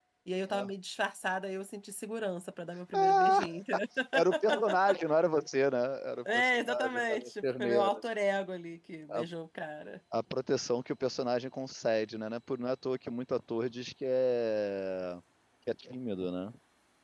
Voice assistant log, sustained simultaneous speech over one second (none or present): present